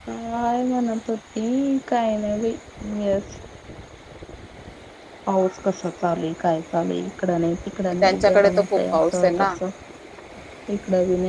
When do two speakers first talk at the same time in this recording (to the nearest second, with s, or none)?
8 s